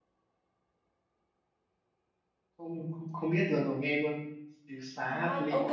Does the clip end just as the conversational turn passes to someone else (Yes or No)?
Yes